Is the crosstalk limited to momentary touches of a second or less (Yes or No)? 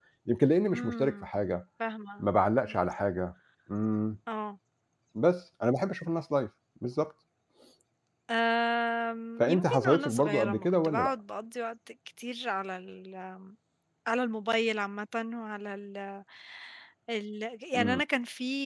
No